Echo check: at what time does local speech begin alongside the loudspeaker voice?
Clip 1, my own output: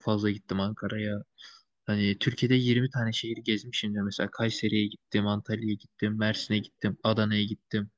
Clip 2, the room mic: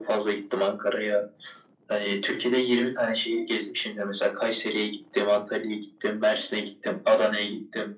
none

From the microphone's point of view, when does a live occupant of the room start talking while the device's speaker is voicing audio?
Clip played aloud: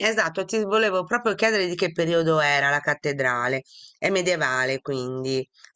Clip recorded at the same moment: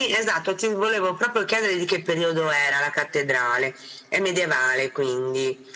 none

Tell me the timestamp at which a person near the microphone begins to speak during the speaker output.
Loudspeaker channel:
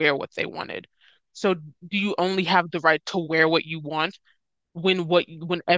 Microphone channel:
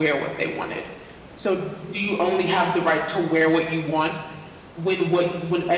none

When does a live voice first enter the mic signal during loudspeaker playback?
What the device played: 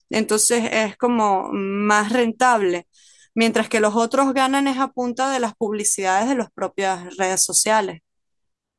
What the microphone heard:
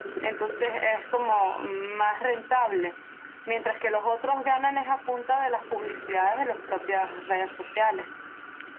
none

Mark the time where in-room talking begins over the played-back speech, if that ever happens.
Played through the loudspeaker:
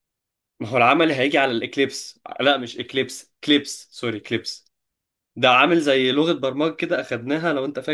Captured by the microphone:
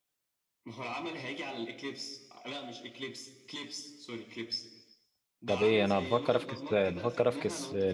5.5 s

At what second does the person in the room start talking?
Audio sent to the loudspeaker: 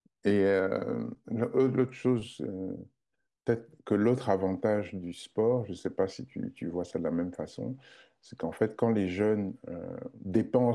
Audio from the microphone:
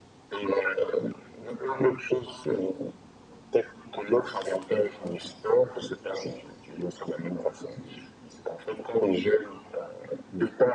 none

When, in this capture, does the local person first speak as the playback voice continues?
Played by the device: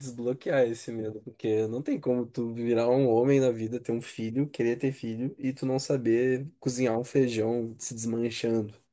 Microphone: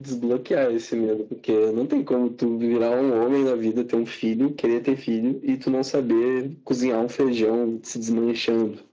none

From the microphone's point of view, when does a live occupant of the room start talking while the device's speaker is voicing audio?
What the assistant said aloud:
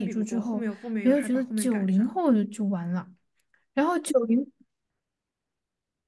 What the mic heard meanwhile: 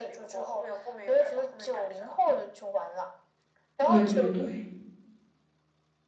3.8 s

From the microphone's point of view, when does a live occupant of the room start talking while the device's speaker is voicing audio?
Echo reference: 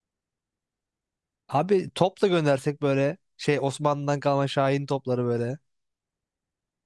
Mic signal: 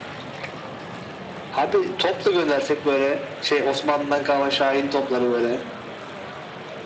none

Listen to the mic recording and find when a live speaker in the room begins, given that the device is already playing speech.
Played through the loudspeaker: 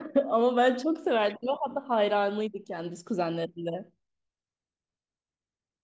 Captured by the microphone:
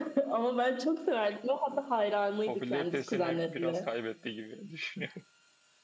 2.4 s

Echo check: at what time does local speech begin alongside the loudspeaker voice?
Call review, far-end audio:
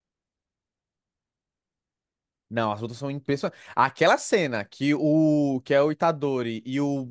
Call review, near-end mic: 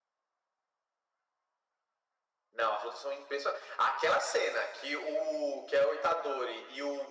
none

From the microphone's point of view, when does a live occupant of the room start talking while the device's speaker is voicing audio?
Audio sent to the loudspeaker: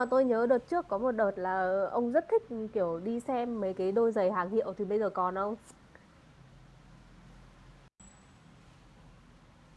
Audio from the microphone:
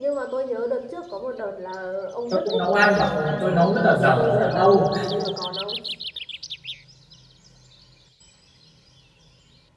2.3 s

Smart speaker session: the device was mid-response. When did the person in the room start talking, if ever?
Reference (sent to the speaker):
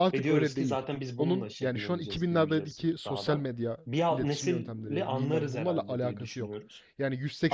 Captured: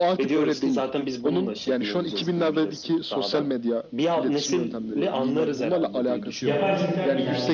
6.4 s

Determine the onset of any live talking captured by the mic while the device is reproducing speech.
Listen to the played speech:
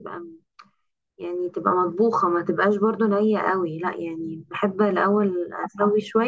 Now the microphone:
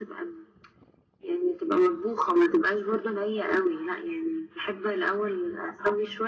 none

